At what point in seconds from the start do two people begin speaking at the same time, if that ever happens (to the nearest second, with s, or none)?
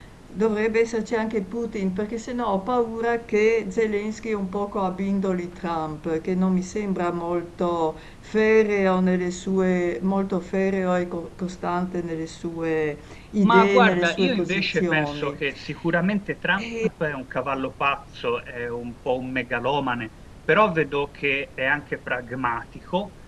13 s